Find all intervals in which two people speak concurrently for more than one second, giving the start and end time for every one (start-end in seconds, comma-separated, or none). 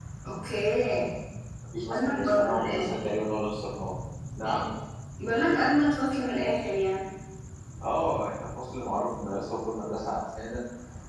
1.9-3.2